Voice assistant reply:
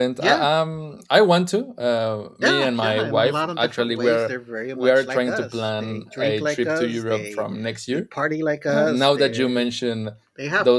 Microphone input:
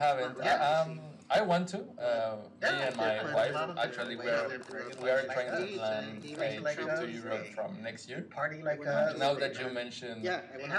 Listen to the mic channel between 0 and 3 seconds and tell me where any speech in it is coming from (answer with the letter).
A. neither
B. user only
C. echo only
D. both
D